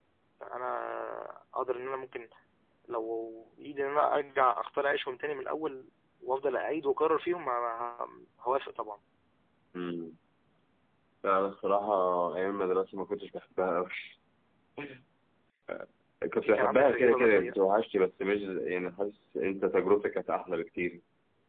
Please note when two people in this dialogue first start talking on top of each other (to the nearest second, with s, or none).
16 s